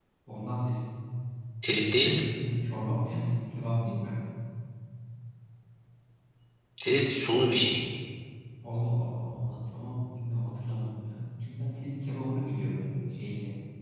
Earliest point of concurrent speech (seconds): none

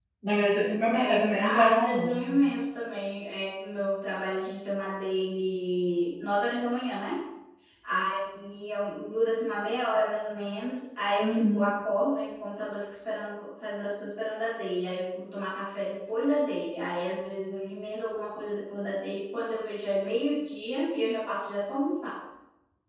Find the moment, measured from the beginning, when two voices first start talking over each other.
0.9 s

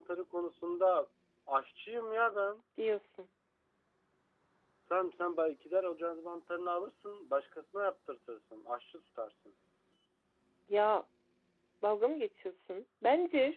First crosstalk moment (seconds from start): none

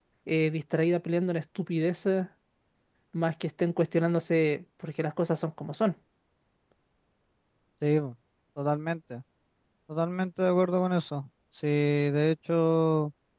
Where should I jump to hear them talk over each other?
none

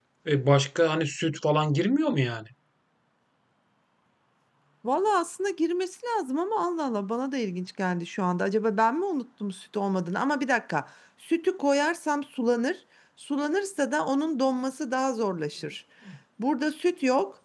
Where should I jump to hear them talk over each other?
none

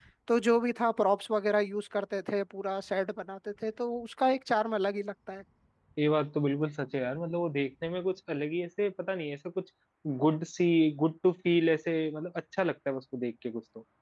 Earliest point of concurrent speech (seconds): none

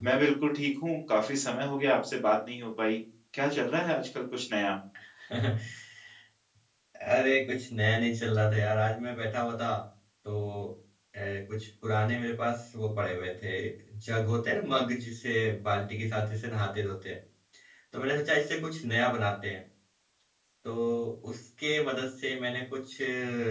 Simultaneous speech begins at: none

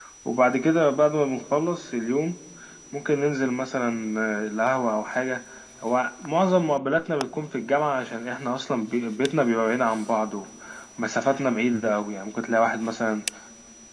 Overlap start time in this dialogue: none

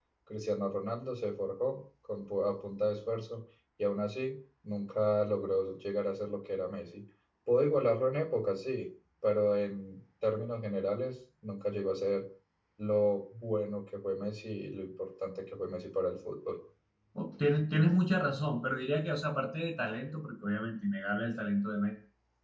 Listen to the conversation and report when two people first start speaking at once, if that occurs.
none

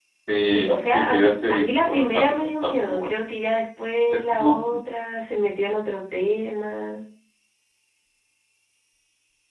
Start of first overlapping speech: 0.5 s

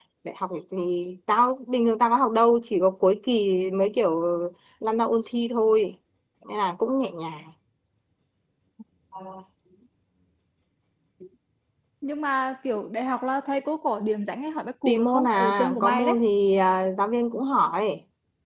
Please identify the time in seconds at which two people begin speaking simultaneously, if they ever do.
14.8 s

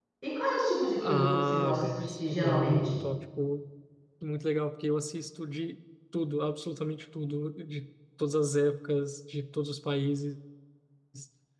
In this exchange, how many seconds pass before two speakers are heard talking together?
1.0 s

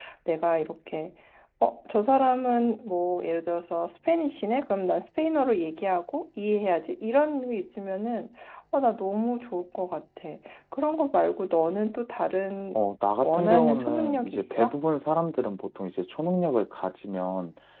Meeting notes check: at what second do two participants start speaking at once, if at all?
13.2 s

